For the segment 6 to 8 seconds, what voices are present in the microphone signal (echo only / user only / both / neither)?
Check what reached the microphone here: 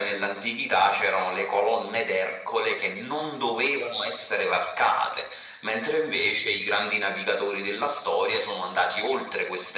echo only